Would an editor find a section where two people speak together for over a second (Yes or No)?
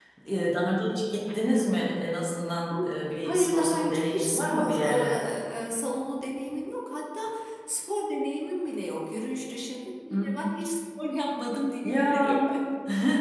Yes